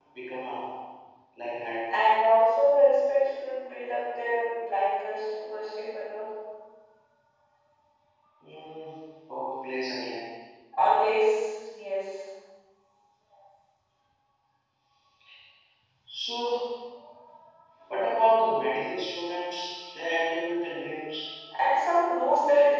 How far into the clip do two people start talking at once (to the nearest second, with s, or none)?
none